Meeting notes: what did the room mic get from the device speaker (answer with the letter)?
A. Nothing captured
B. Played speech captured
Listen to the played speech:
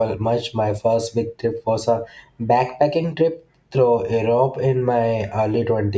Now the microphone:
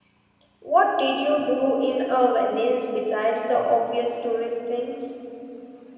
A